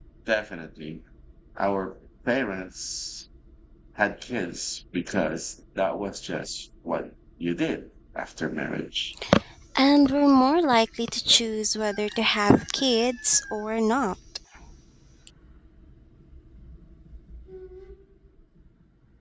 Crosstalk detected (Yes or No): No